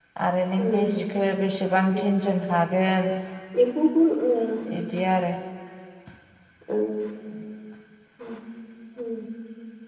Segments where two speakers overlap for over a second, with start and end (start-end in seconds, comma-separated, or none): none